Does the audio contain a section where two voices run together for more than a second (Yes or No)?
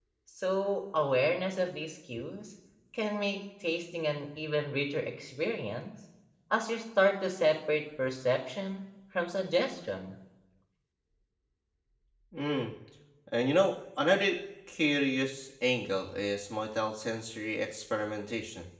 No